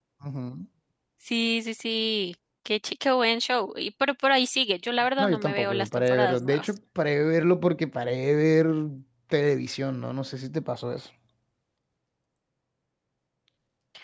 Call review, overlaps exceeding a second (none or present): present